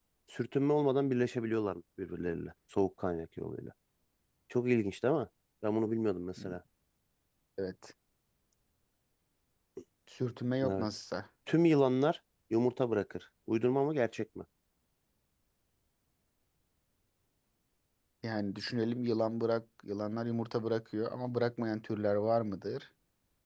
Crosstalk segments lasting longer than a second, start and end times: none

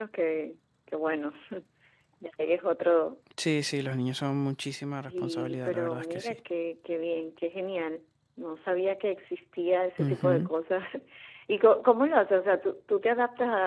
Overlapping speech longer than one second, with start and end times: 5.1-6.3

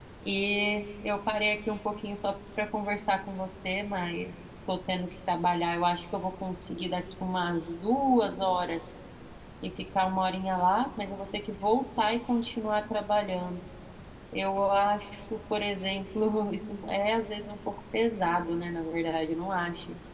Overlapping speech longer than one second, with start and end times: none

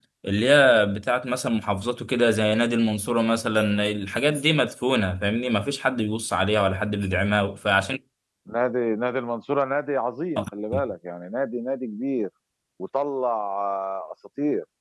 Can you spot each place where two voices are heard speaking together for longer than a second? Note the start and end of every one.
none

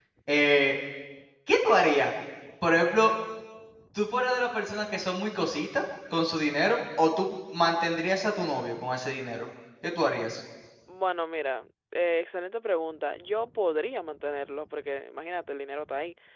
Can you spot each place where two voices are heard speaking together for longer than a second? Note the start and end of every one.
none

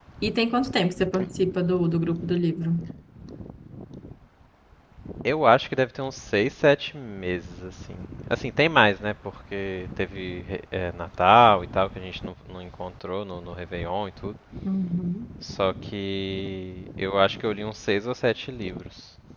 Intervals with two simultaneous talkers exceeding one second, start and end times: none

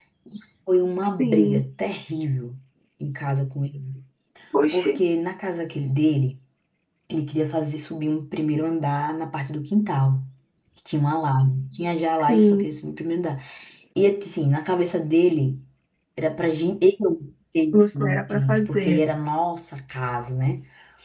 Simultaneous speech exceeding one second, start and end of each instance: 17.7-19.0

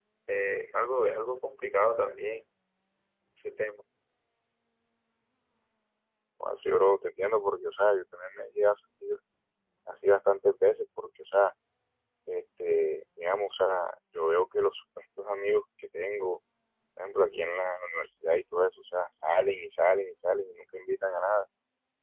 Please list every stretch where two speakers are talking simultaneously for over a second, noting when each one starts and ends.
none

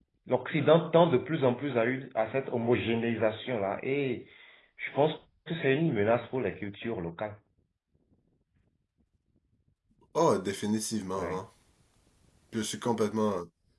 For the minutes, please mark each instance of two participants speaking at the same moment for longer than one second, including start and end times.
none

